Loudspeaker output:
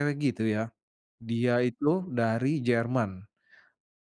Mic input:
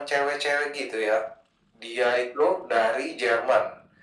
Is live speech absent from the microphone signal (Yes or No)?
Yes